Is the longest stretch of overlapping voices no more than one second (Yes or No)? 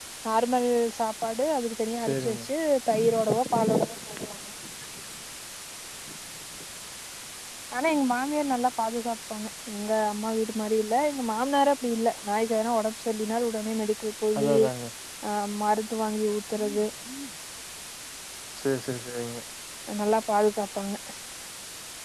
Yes